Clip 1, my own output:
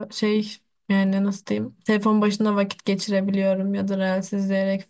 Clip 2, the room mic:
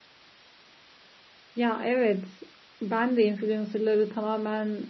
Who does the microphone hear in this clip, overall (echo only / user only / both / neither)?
user only